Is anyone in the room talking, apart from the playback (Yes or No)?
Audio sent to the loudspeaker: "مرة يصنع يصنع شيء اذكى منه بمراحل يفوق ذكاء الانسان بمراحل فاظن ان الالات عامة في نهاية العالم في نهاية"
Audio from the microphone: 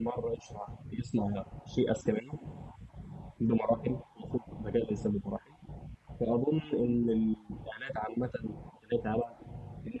No